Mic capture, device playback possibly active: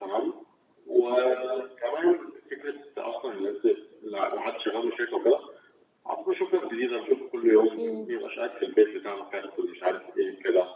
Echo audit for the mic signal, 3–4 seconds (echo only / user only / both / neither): echo only